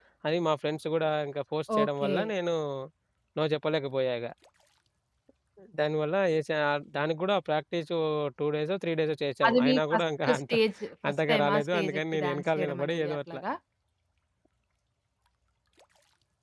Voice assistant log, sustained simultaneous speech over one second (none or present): present